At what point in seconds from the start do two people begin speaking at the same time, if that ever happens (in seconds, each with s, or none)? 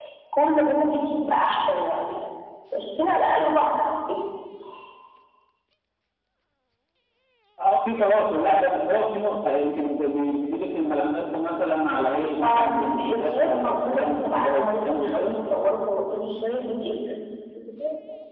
12.4 s